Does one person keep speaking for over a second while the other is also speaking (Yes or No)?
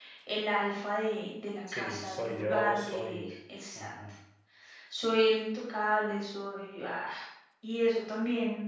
Yes